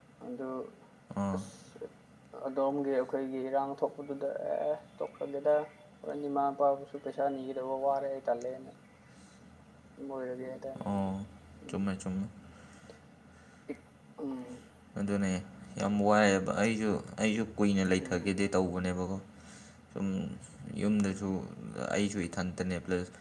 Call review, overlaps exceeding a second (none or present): none